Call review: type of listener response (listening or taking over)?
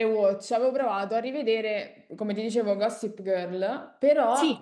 listening